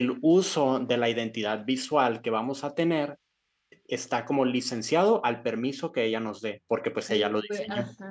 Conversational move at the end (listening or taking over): taking over